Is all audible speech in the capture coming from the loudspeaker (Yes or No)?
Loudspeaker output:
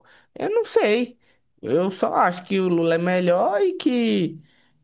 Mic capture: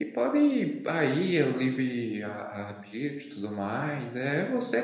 No